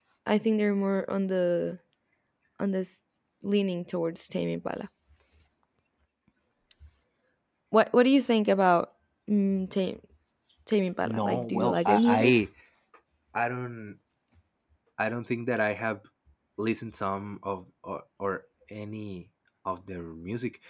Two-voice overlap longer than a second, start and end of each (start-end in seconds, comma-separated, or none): 11.0-12.4